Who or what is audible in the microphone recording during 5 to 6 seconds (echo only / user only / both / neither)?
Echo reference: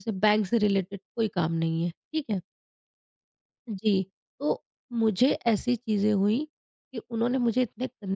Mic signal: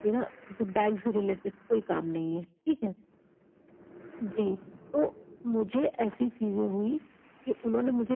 echo only